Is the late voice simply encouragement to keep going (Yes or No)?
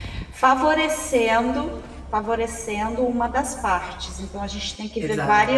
Yes